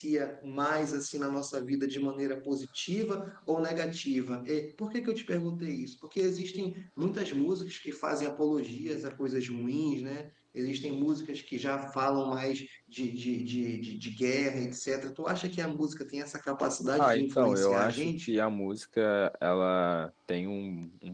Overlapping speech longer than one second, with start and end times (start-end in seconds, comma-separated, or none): 17.0-18.3